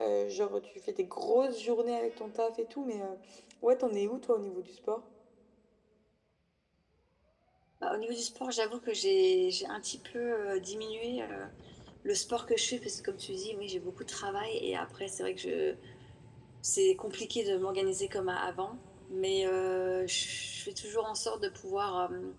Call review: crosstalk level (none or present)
none